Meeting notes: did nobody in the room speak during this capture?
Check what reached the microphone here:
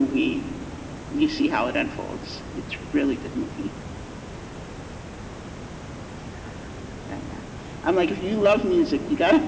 Yes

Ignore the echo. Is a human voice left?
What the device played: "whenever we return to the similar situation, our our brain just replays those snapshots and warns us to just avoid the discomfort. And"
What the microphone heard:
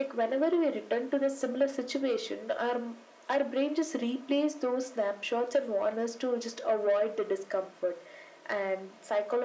No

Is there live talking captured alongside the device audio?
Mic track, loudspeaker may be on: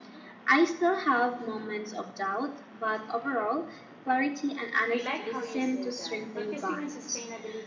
Yes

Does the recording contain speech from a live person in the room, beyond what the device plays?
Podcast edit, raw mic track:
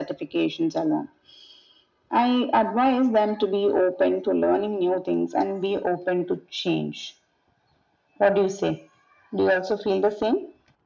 No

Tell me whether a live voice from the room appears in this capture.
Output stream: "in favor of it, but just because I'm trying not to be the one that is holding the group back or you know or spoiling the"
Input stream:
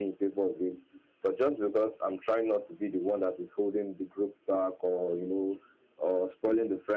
No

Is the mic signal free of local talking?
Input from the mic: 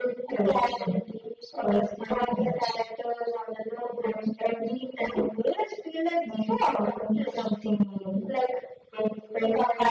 Yes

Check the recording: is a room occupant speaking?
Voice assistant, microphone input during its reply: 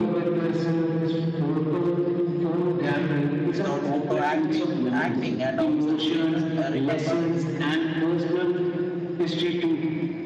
Yes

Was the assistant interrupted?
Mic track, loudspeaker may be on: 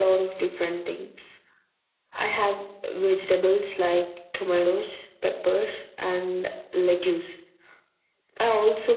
No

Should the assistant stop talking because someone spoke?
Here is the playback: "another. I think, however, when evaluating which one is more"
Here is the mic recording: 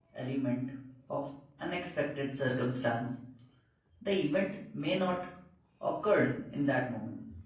Yes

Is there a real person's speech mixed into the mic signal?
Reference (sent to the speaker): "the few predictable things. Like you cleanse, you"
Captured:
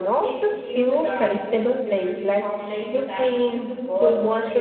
Yes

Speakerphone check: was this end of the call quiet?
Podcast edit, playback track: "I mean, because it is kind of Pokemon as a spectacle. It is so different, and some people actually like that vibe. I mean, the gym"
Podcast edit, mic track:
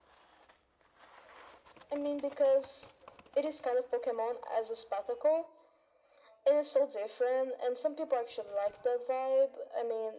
Yes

